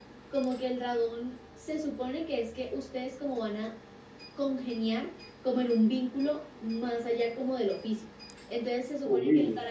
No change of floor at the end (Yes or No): Yes